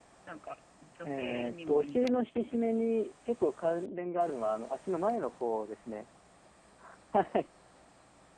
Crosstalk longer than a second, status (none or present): present